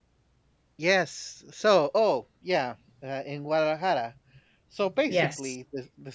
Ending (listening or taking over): listening